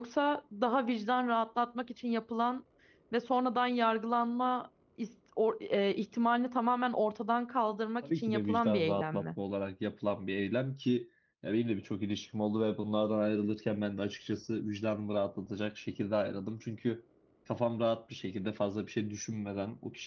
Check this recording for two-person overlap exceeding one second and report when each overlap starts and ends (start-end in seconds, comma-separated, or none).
8.0-9.2